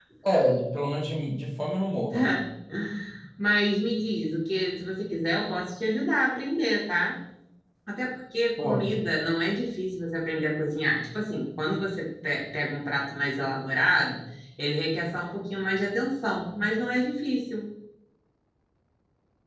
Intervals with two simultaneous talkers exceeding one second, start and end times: none

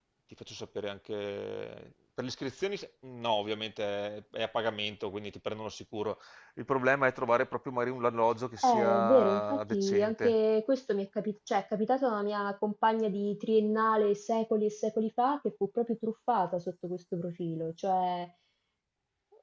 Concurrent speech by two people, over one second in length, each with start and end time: 8.6-10.3

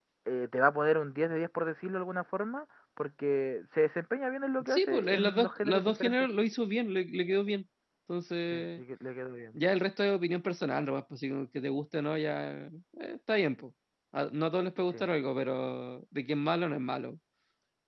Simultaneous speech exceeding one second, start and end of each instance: 4.7-6.3

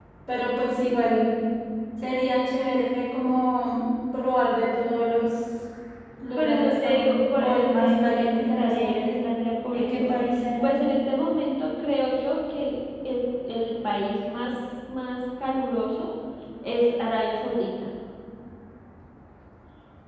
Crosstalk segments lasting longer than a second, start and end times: 6.4-9.2

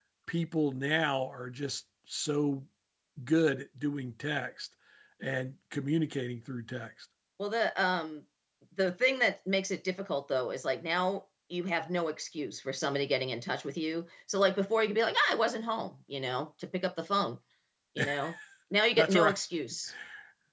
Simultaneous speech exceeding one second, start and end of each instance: none

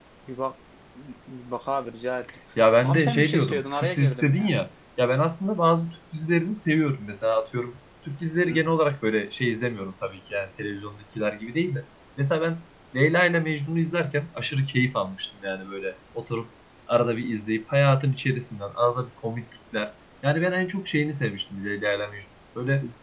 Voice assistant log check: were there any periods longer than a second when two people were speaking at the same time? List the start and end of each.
2.8-4.5

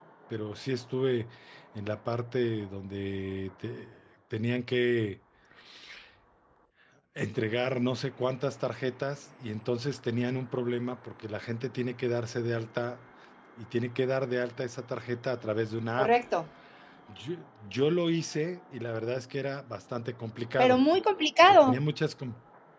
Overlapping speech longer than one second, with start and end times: none

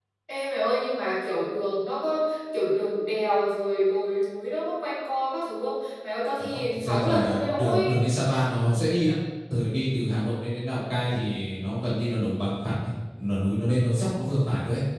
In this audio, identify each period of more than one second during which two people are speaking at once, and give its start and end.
6.4-8.0

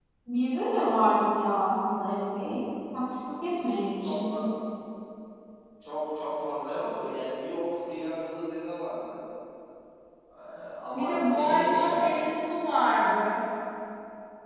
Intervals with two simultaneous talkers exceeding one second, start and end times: 10.9-12.2

